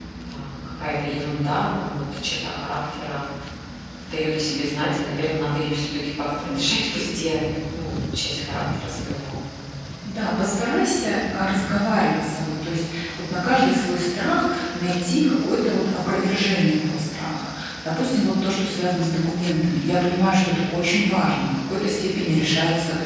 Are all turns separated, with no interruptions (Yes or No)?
Yes